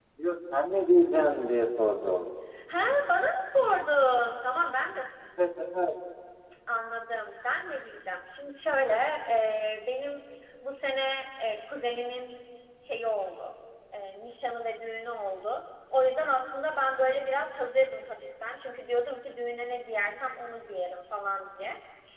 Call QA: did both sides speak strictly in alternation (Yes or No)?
Yes